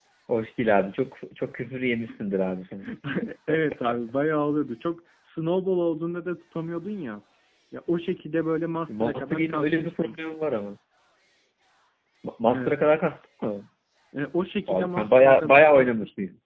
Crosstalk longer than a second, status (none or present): present